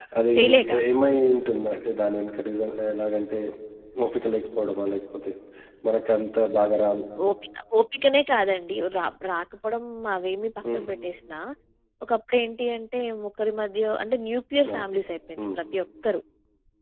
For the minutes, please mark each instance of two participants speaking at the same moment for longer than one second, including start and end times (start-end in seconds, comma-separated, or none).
none